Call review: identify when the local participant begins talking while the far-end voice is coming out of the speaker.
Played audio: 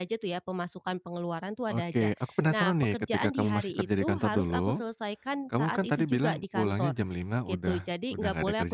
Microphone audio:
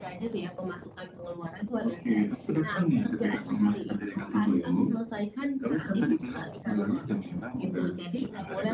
none

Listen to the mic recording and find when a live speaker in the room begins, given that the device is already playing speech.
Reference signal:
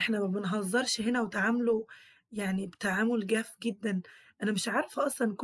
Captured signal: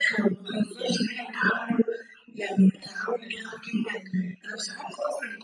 none

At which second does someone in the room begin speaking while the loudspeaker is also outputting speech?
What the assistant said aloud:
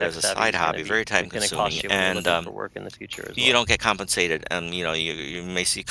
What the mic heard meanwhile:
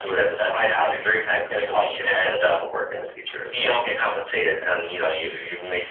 none

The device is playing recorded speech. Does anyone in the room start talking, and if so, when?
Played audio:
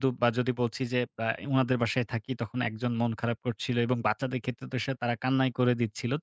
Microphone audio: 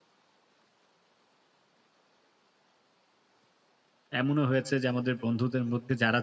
4.2 s

